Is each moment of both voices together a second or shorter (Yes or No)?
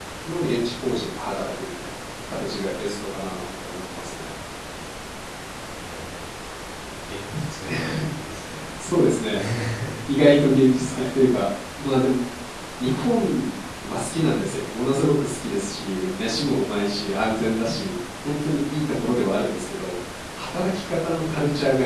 Yes